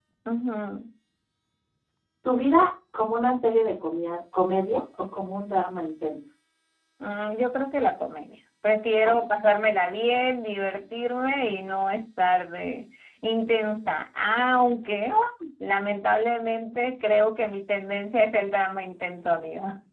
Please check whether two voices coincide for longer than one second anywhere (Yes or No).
No